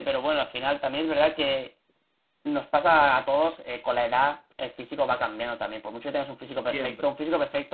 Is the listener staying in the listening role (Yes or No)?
Yes